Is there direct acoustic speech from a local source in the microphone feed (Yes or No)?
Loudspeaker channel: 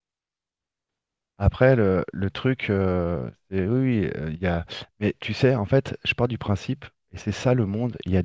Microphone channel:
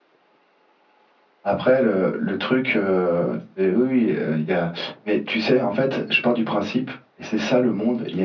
No